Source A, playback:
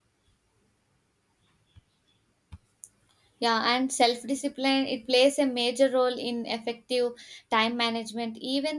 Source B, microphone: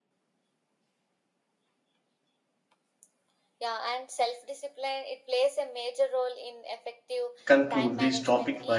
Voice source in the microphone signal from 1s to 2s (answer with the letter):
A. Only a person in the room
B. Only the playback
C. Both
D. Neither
D